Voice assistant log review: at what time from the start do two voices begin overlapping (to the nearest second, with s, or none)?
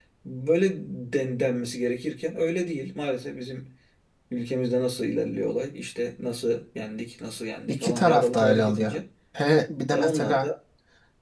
8 s